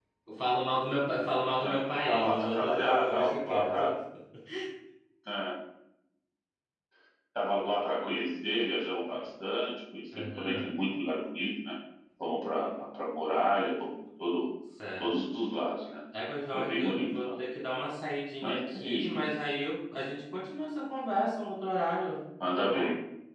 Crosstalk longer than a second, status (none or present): present